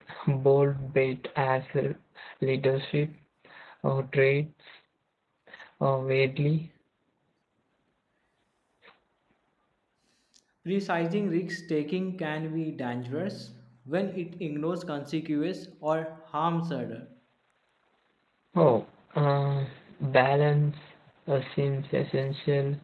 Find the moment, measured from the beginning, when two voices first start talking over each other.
none

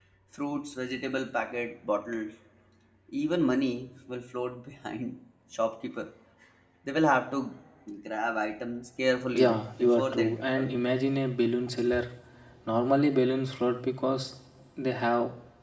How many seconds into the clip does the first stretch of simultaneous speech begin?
9.3 s

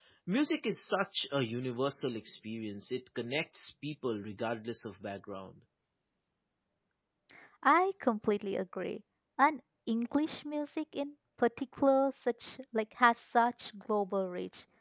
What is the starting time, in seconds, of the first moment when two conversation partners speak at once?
none

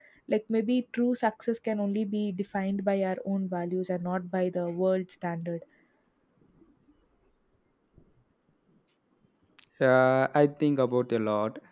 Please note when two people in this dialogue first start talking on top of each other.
none

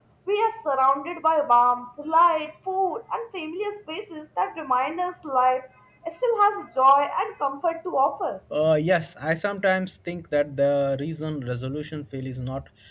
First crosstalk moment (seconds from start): none

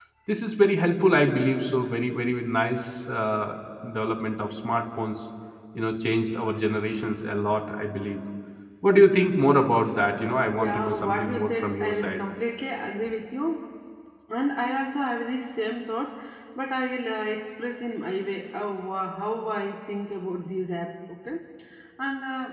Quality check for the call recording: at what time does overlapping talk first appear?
10.5 s

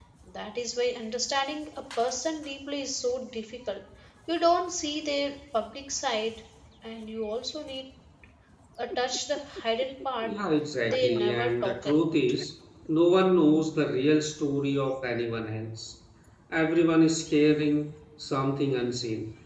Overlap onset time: 10.9 s

